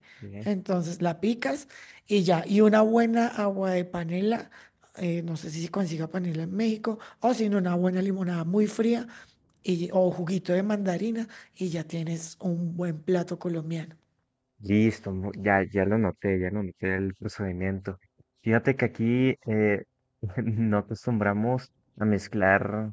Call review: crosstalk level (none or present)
none